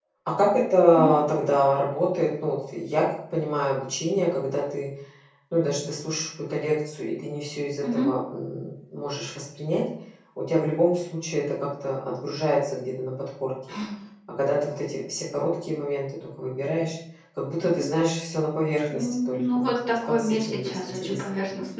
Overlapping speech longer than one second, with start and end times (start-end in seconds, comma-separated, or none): 18.9-21.2